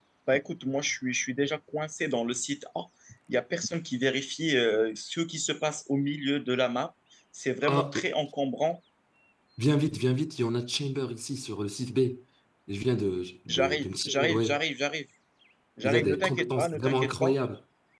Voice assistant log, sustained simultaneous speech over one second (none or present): present